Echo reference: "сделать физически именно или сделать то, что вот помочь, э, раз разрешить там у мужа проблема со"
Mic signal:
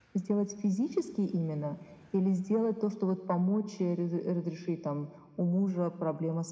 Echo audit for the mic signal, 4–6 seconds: echo only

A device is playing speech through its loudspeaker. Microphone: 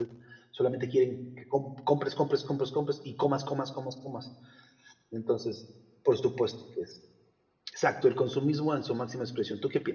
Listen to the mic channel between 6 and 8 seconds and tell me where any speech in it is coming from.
user only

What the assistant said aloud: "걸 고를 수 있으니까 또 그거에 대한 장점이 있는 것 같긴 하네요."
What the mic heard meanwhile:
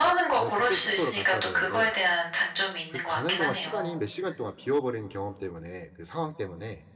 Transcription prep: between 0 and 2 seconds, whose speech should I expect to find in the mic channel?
both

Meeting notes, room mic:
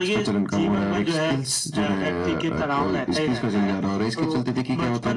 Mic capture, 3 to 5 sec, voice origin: echo only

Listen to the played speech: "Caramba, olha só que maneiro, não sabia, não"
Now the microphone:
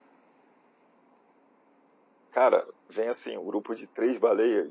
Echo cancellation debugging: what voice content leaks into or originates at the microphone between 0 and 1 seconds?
neither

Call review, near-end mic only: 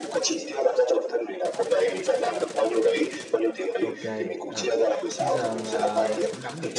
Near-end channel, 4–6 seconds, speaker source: both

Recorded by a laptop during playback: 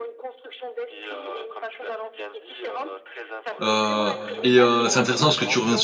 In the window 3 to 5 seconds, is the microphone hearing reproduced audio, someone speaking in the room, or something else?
both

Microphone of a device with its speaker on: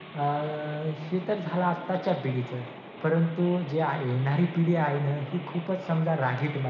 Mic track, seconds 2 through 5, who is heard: echo only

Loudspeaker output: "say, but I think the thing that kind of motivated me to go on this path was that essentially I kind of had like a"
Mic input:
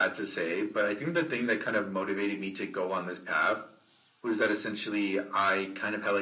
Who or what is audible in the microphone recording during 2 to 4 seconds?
echo only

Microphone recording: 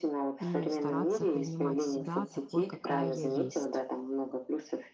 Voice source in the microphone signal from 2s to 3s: both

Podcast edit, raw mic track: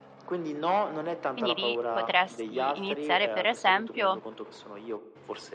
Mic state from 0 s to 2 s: both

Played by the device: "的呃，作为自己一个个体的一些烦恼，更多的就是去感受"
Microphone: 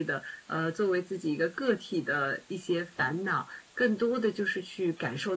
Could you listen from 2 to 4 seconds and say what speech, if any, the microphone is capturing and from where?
echo only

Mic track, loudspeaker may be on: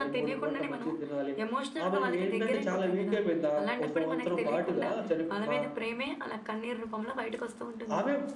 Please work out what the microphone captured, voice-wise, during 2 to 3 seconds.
both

